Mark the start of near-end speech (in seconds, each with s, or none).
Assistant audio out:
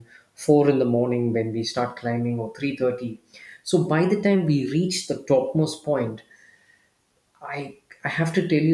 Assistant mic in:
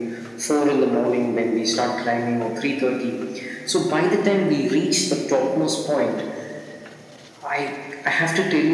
none